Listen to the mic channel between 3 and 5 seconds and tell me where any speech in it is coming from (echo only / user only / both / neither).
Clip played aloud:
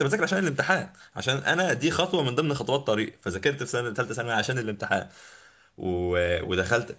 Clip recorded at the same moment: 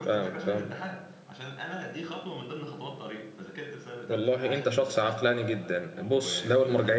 both